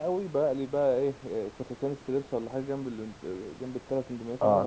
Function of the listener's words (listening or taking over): taking over